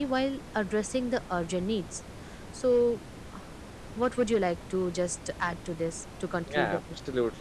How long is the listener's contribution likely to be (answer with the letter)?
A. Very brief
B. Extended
B